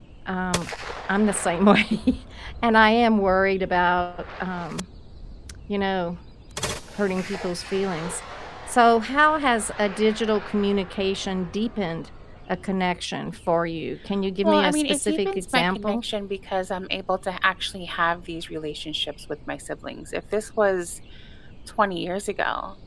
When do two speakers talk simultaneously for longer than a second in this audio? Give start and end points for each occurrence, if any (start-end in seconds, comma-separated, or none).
14.4-16.0